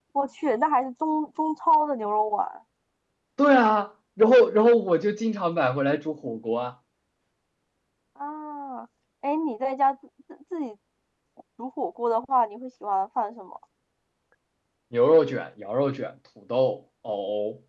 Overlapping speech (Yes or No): No